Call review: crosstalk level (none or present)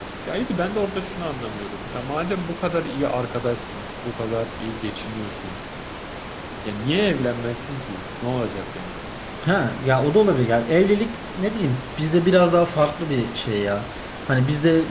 none